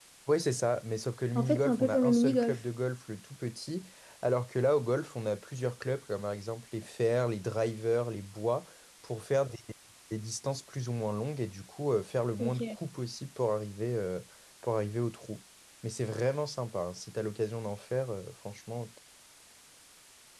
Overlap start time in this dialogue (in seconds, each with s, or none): 1.4 s